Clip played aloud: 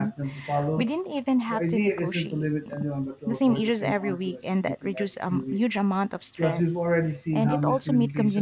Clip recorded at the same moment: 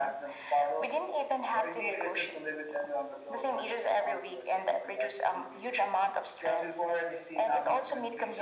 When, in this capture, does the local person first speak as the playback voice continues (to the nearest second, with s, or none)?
none